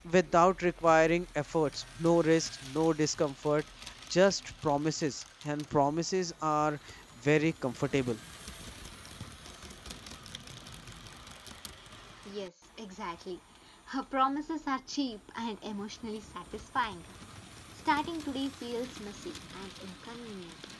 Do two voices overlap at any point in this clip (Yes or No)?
No